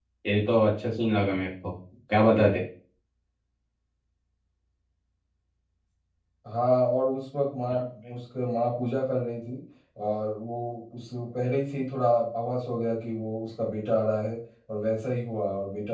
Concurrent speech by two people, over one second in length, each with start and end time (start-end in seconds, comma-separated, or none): none